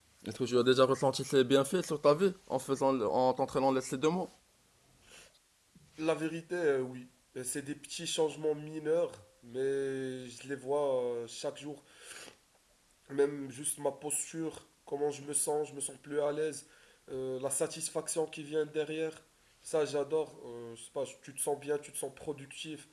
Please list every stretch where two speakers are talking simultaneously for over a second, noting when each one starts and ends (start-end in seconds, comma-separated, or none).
none